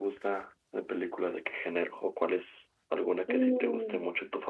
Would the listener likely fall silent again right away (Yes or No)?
No